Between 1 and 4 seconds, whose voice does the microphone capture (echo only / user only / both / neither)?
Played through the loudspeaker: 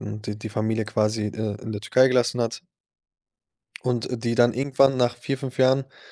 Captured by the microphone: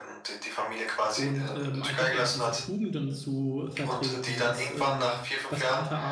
both